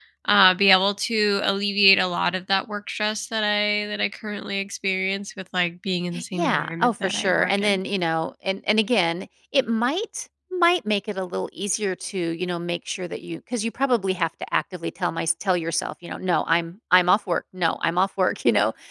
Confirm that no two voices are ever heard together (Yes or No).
No